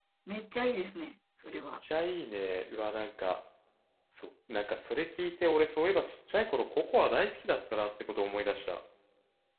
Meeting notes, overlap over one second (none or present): none